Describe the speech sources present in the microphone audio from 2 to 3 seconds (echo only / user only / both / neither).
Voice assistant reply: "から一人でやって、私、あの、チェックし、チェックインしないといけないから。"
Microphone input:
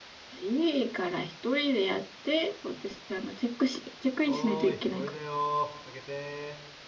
echo only